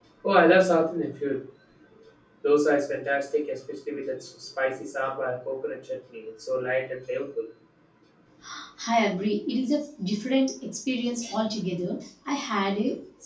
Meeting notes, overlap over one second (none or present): none